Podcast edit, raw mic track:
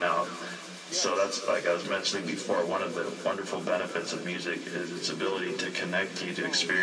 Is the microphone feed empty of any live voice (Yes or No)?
No